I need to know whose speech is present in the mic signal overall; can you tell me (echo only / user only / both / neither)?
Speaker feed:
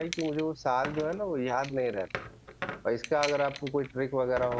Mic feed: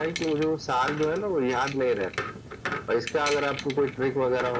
echo only